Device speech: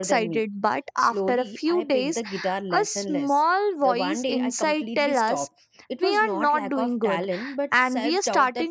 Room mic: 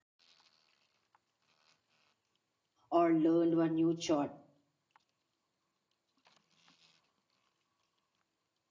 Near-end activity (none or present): present